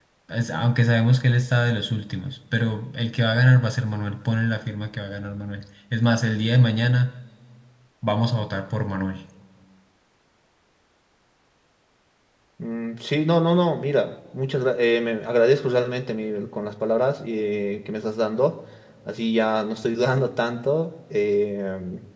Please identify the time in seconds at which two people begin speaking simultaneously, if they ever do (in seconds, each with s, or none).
none